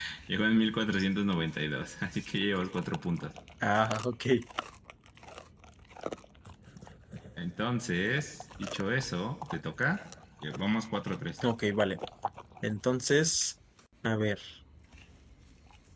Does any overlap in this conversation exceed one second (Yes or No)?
No